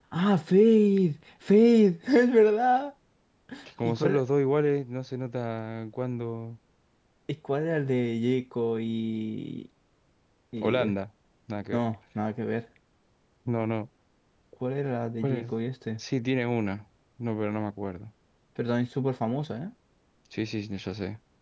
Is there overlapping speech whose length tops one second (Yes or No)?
No